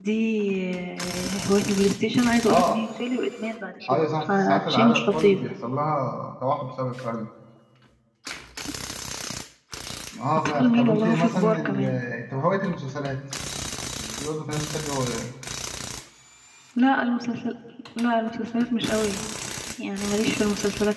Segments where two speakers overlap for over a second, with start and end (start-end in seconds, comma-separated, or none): 3.9-5.4, 10.4-12.0